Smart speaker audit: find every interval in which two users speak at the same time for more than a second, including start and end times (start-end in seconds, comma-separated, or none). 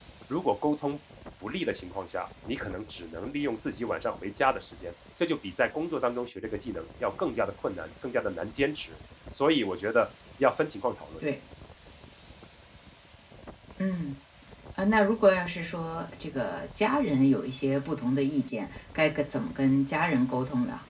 none